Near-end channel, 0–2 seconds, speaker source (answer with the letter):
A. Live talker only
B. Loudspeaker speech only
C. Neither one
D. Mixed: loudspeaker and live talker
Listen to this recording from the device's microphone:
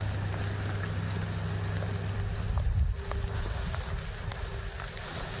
C